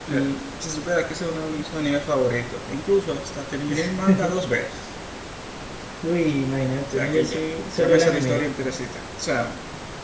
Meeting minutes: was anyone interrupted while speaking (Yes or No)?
Yes